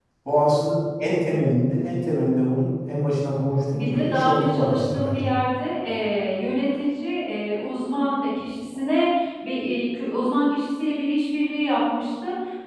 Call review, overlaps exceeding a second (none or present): present